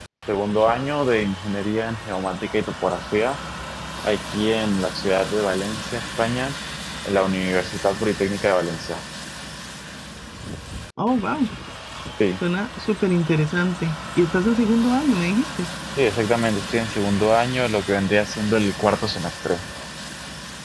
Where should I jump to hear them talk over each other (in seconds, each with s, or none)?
none